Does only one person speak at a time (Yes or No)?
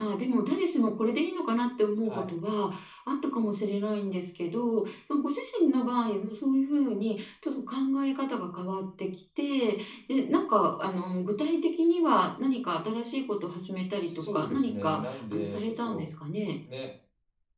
No